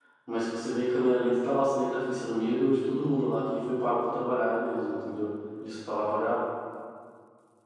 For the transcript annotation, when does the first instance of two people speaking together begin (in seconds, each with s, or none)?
none